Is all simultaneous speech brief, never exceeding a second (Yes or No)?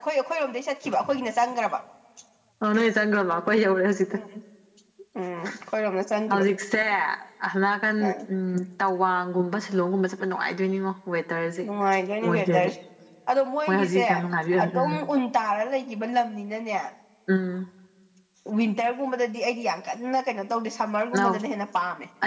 Yes